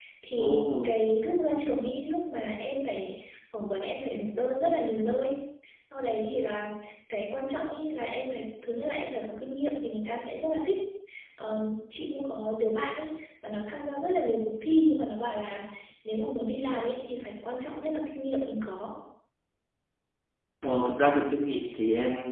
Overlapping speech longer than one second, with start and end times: none

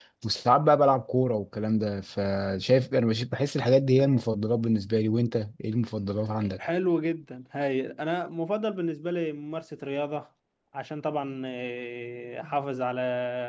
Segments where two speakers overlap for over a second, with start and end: none

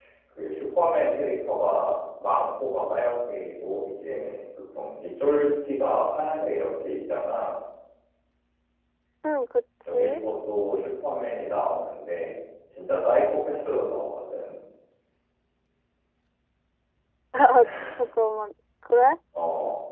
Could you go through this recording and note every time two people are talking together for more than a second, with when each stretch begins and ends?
none

